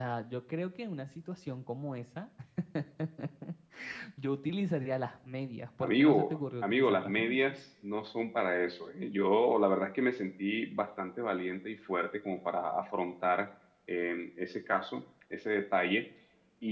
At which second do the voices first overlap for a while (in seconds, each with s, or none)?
5.8 s